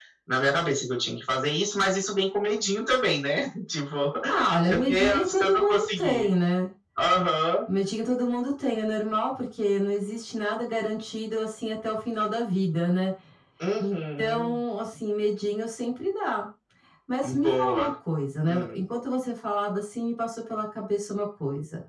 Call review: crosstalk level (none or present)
present